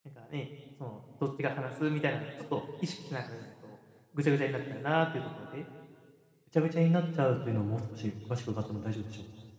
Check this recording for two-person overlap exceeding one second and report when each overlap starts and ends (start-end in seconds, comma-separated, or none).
none